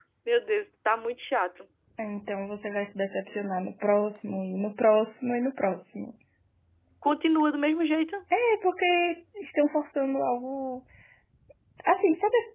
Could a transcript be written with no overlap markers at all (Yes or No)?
Yes